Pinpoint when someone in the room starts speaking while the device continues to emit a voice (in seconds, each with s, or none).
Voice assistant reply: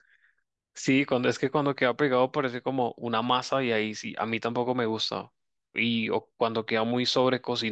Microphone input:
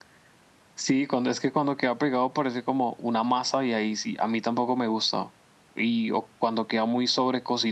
none